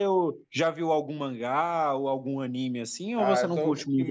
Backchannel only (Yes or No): No